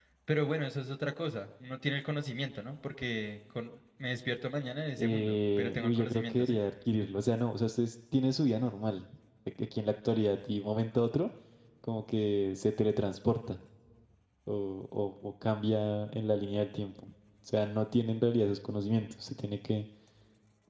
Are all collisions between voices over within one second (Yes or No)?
No